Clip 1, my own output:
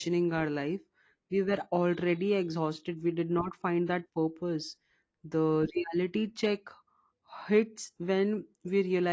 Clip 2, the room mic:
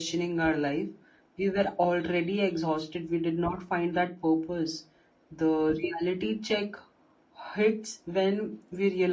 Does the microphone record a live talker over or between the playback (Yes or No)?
No